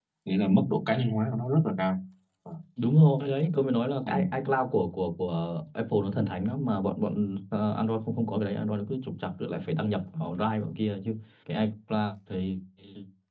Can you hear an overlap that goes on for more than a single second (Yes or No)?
No